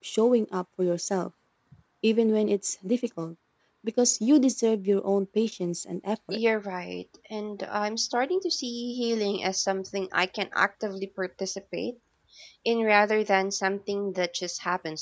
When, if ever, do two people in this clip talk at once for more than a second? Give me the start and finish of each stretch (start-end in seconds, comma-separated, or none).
none